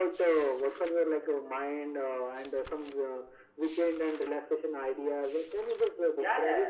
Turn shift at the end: Yes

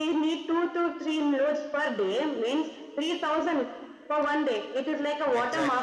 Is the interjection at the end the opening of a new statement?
Yes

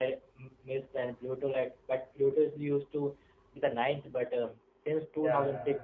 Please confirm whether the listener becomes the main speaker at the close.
No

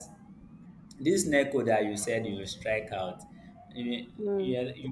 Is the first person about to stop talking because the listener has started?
No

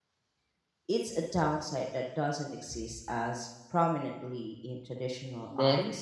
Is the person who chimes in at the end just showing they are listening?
No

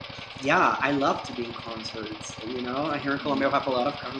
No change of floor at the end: Yes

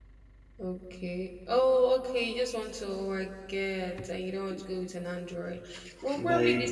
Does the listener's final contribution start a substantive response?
No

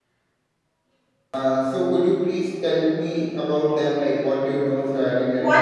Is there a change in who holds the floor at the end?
Yes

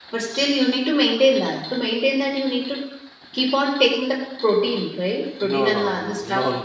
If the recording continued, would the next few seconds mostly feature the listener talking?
Yes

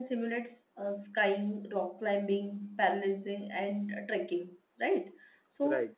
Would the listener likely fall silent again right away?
Yes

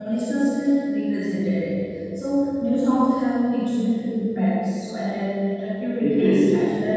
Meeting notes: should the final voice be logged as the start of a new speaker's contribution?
No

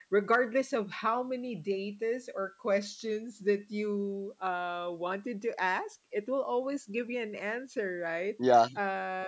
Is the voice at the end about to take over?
No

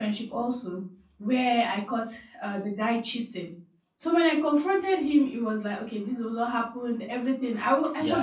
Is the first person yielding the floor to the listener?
No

